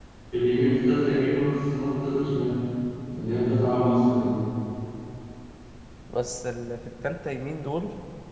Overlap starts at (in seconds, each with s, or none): none